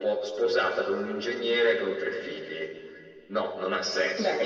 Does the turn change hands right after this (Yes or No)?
Yes